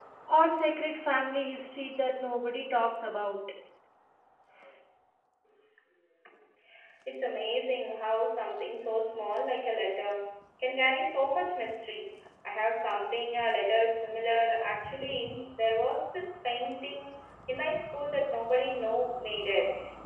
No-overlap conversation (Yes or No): Yes